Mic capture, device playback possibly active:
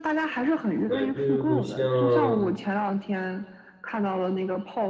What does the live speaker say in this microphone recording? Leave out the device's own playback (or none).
对，就像